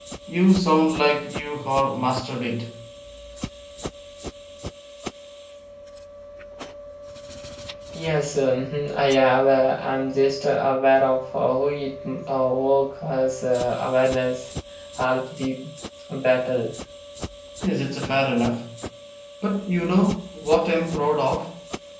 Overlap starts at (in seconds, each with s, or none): none